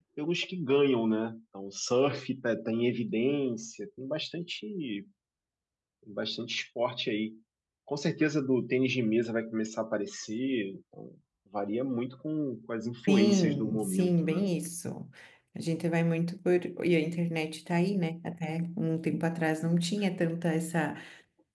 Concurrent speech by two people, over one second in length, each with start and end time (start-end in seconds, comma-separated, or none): 13.1-14.4